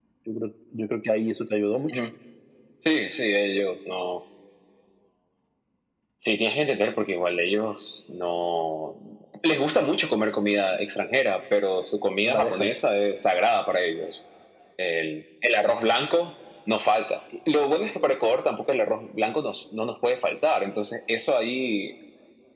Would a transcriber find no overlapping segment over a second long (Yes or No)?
Yes